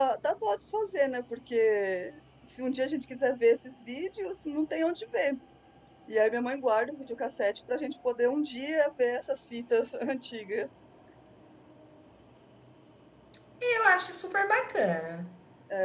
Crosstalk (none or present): none